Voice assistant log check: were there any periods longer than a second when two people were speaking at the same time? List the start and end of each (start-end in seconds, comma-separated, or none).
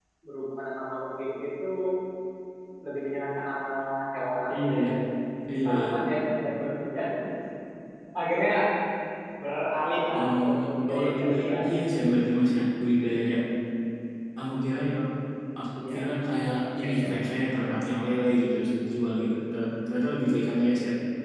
10.2-11.7